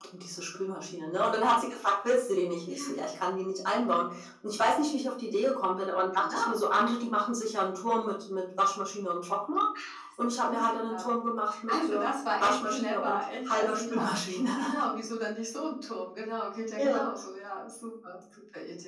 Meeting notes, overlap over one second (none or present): present